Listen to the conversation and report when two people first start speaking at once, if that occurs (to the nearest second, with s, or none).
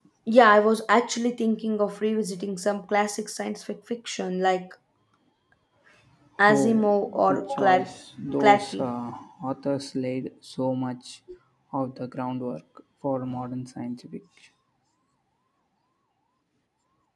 6 s